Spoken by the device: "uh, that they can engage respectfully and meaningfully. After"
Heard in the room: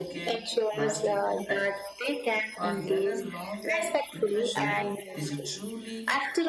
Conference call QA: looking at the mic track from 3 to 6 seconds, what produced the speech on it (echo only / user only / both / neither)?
both